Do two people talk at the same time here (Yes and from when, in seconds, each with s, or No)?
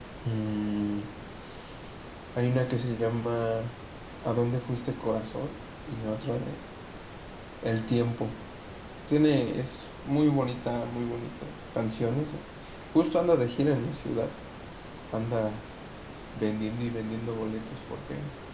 No